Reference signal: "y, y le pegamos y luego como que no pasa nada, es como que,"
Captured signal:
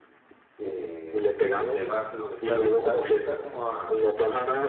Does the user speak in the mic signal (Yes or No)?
Yes